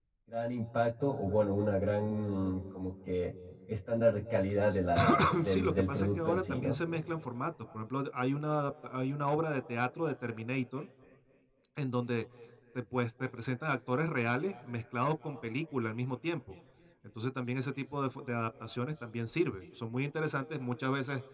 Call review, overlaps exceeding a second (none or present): present